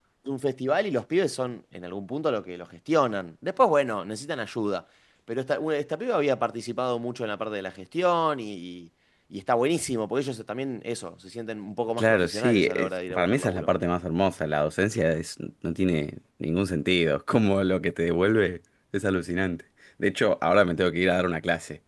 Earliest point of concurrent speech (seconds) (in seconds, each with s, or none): 11.9 s